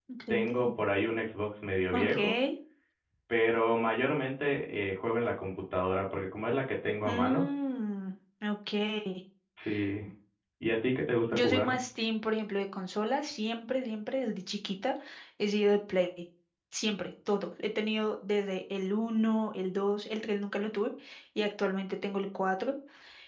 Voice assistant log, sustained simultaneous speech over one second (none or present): none